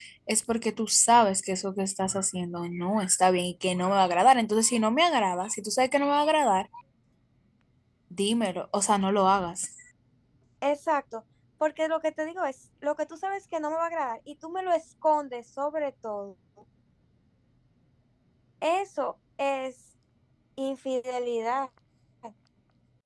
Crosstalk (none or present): none